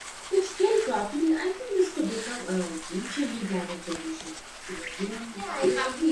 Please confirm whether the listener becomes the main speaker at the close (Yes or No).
Yes